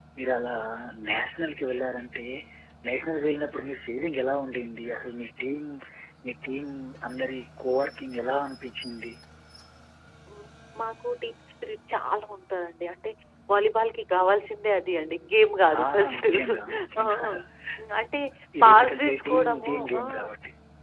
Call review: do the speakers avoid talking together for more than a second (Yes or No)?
No